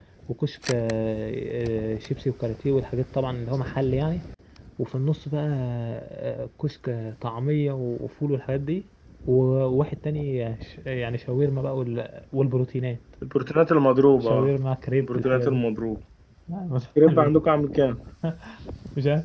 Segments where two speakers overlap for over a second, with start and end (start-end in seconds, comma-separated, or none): none